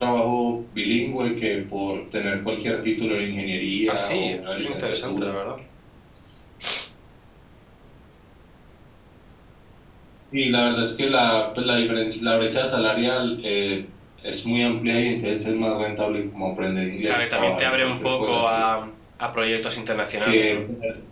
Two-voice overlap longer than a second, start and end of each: 3.9-5.3, 17.1-18.6

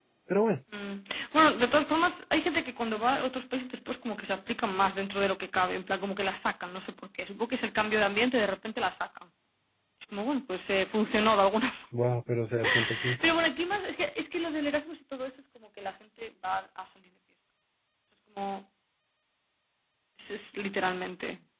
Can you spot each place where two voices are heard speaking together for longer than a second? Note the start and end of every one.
none

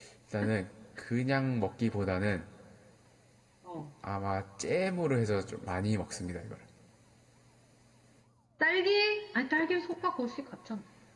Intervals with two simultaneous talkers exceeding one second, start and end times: none

